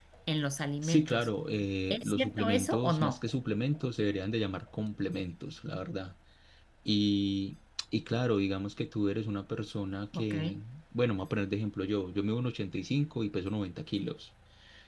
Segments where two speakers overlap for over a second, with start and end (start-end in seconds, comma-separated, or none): 1.9-3.2